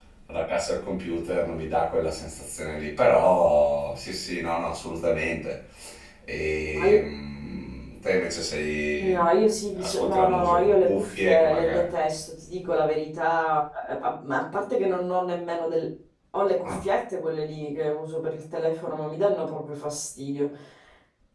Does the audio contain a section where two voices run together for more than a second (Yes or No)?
Yes